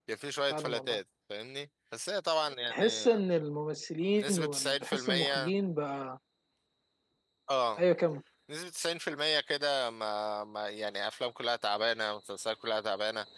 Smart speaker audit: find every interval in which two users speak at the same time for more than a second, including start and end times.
4.2-5.5

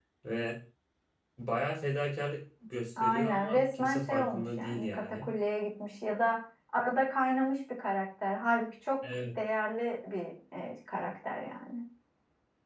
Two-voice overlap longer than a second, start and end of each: 3.0-5.3

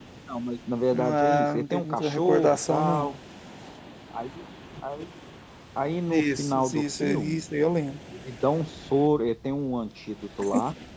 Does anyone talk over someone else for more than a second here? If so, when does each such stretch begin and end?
0.9-3.1, 6.1-7.4

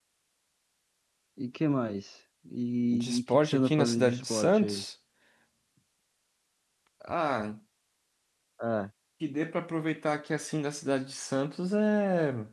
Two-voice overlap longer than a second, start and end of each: 2.9-4.8

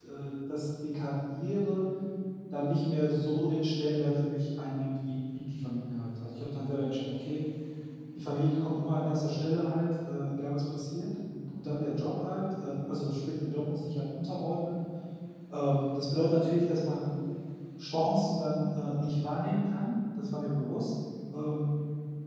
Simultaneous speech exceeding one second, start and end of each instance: none

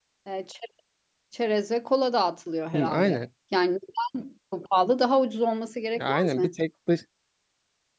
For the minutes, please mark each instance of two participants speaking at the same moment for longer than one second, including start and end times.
none

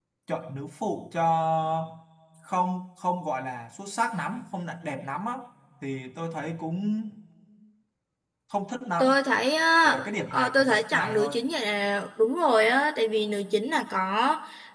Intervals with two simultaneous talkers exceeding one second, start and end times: 9.8-11.3

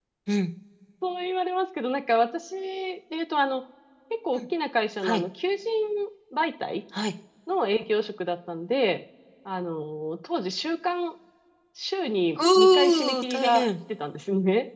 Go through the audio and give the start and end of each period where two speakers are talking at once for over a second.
12.4-13.7

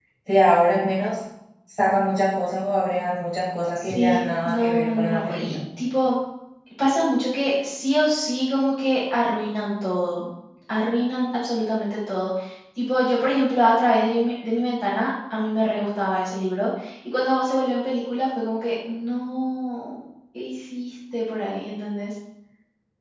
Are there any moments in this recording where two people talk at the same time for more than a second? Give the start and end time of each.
3.8-5.6

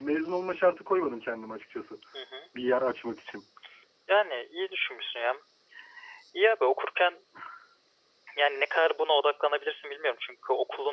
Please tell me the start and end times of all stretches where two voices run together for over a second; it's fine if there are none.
none

